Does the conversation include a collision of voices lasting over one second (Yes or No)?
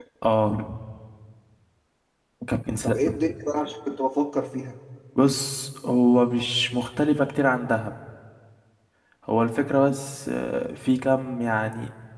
No